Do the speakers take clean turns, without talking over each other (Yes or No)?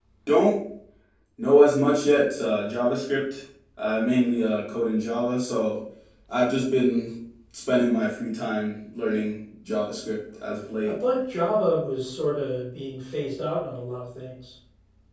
Yes